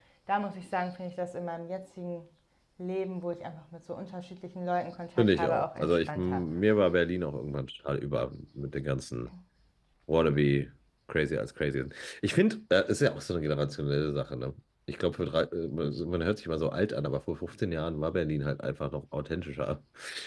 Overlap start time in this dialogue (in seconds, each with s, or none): 5.2 s